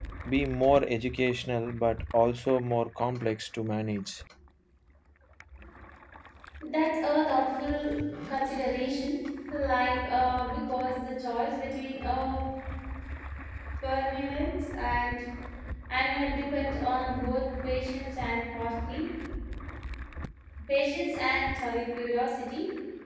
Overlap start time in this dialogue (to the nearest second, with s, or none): none